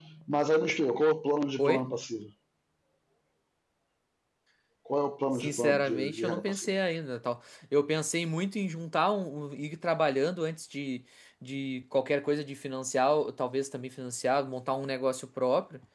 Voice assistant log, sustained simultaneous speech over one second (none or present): present